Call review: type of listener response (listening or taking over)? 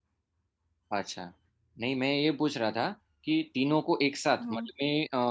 listening